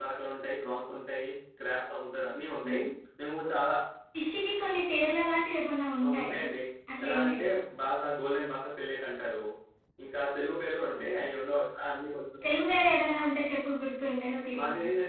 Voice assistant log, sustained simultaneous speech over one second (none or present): none